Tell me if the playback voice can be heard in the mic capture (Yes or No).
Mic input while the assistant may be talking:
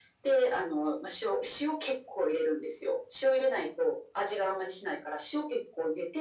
Yes